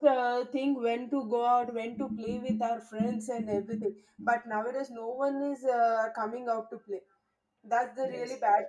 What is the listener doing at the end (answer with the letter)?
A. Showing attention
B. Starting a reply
A